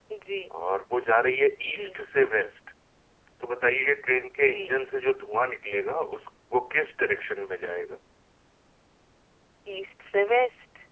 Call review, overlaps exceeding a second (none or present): none